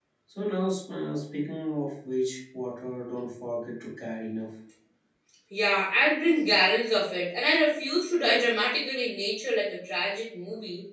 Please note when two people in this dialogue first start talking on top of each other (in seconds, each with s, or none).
none